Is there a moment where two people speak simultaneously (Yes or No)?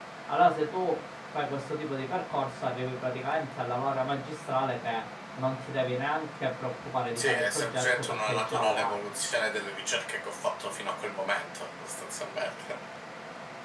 Yes